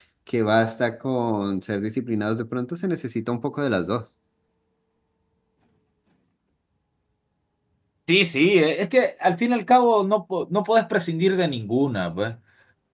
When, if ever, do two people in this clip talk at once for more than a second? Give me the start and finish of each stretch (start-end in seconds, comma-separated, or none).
none